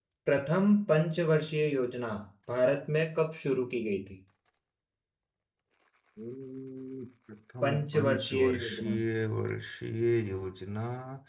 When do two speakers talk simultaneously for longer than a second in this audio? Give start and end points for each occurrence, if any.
7.6-9.0

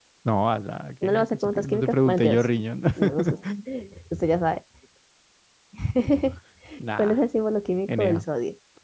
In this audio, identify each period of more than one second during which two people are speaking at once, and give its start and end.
1.0-2.4

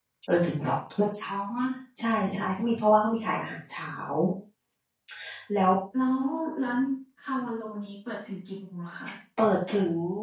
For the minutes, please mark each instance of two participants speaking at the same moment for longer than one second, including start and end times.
none

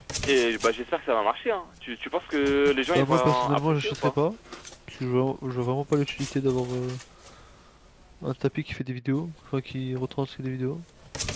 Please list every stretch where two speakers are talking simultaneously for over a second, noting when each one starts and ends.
2.9-4.2

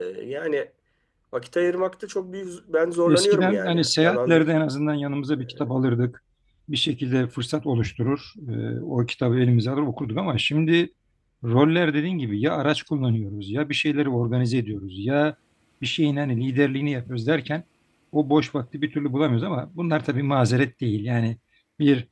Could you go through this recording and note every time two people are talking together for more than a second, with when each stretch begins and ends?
3.1-4.5

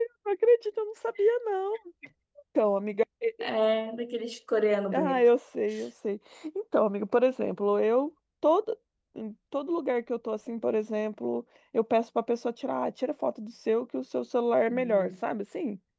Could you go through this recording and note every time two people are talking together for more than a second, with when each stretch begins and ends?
none

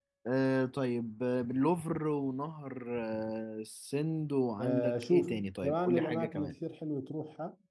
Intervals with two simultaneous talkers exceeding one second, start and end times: 4.6-6.5

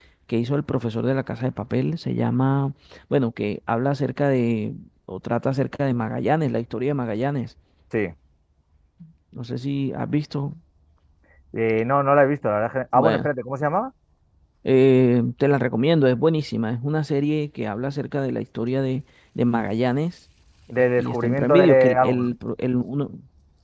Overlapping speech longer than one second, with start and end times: 20.7-22.3

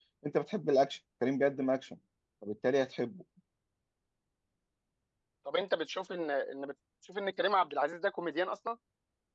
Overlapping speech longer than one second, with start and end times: none

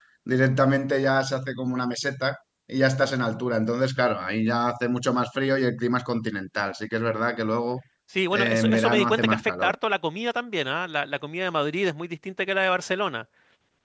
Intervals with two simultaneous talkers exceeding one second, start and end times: 8.3-9.7

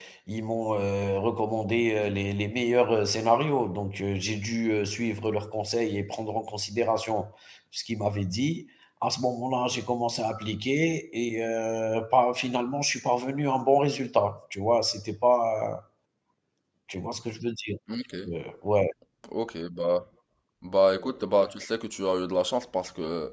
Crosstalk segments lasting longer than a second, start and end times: none

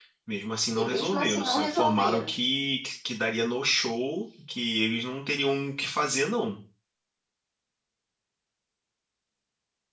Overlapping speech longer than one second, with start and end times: 0.8-2.3

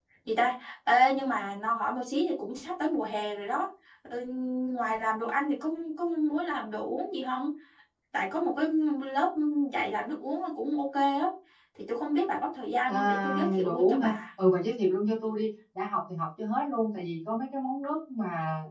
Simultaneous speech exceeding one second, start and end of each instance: 12.9-14.2

